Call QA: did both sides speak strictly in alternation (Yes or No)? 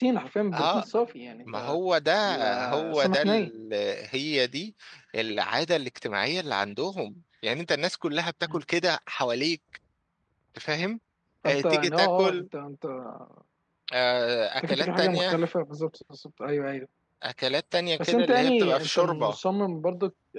No